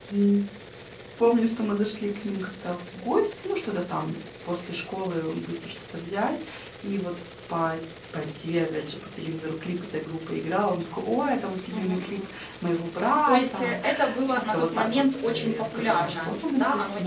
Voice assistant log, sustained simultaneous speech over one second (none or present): present